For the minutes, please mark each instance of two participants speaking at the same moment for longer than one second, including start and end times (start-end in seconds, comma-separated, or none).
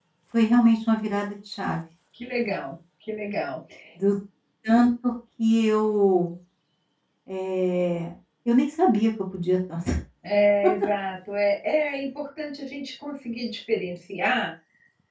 none